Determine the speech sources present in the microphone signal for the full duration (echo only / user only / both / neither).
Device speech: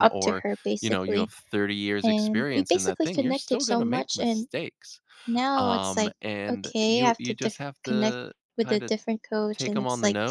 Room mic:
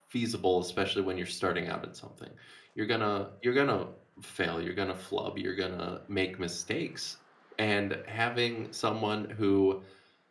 user only